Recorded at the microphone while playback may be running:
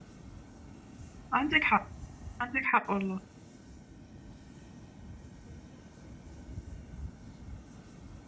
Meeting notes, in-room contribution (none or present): present